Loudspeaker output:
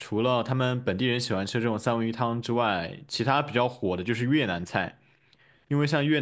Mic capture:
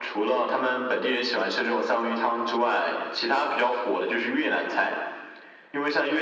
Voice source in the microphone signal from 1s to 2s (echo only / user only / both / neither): echo only